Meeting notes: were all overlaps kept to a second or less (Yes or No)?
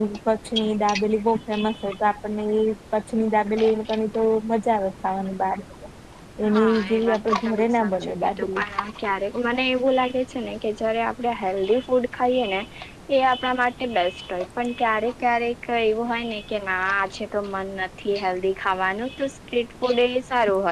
No